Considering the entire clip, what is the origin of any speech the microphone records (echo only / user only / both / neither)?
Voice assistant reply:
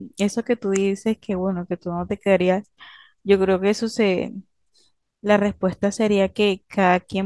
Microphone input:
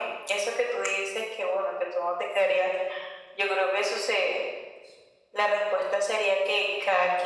echo only